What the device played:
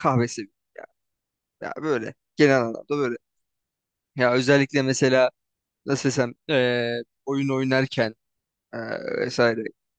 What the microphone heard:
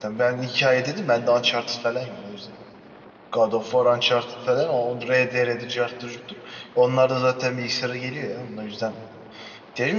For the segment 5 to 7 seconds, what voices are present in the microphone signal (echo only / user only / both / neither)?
user only